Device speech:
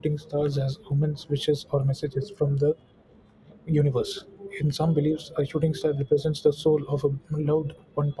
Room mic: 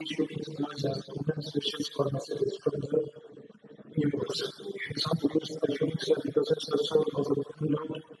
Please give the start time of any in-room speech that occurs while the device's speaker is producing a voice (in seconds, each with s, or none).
none